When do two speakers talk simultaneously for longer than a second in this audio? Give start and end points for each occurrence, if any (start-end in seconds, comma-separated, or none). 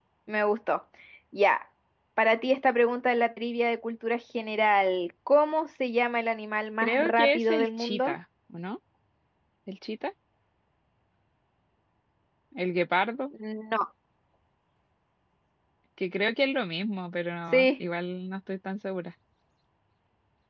6.8-8.2